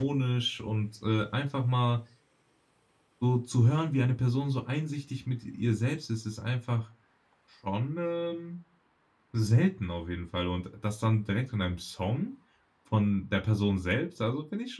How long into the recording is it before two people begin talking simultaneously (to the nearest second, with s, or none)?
none